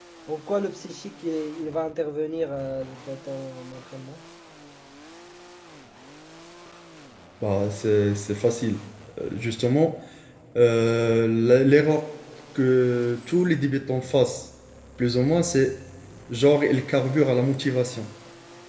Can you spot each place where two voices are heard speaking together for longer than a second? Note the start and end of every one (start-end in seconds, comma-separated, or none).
none